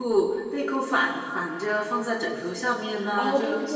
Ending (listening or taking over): taking over